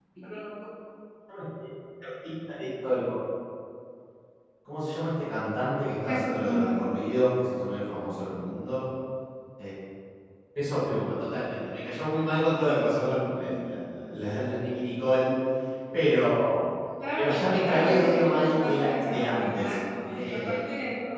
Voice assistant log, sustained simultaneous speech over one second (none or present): present